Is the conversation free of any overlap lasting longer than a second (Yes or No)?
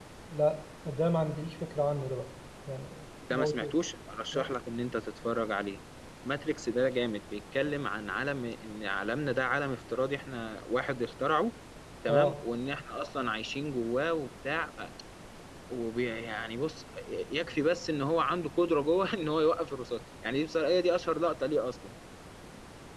Yes